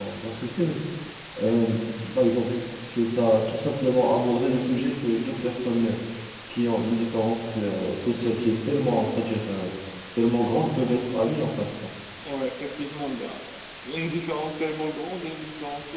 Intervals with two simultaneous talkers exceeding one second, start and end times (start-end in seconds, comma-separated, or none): none